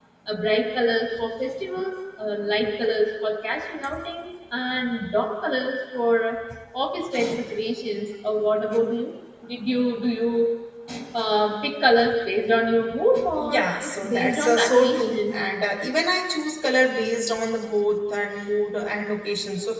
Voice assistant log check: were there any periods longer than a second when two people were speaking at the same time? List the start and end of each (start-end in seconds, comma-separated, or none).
13.4-15.4